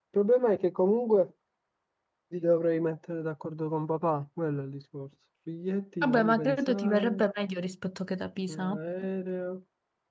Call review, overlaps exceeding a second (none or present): present